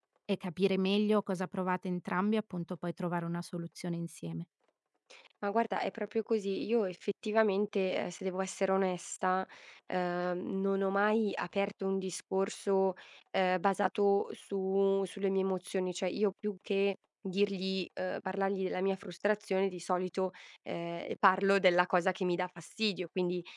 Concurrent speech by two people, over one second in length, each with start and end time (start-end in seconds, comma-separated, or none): none